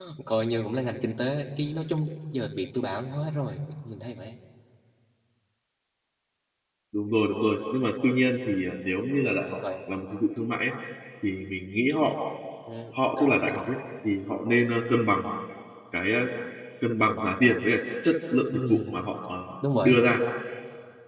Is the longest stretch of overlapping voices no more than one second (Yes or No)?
Yes